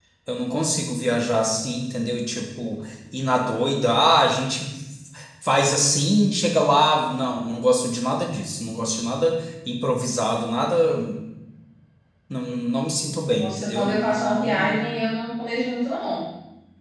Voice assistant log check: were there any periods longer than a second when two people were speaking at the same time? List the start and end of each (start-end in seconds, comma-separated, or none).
13.4-14.8